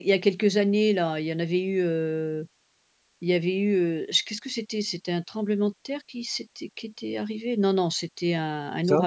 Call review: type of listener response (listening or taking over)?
listening